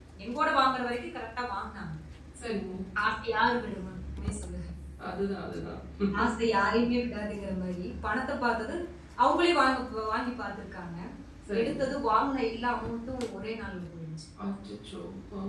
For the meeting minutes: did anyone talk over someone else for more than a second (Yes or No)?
No